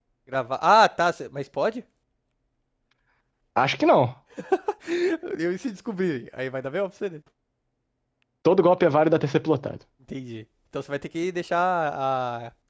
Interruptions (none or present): none